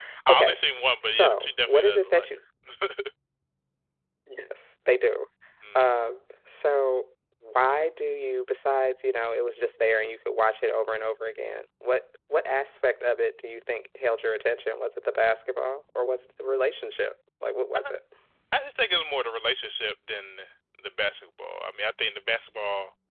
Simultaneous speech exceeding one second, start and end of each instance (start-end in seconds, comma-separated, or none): 1.1-2.3